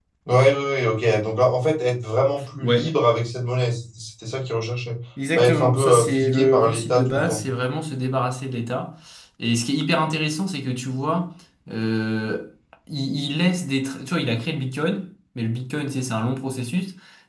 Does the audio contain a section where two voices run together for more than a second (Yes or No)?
Yes